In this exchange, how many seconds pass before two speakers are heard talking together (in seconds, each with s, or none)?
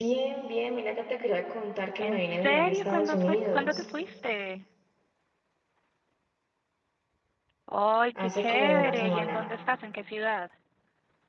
2.0 s